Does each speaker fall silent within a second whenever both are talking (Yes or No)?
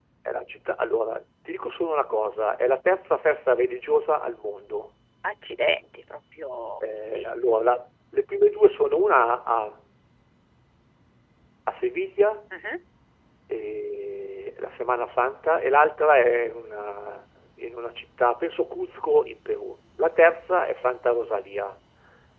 Yes